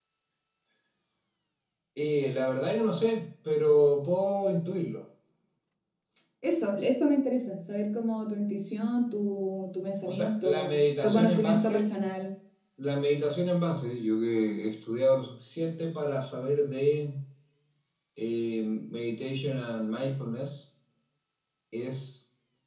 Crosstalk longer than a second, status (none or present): present